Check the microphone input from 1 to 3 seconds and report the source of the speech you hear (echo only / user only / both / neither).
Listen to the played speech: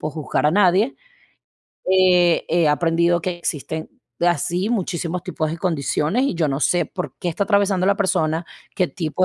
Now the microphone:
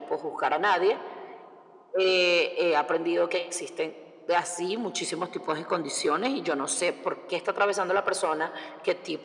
echo only